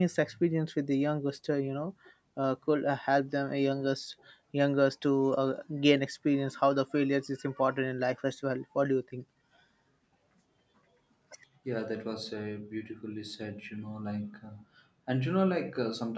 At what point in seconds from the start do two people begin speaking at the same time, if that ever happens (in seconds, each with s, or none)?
none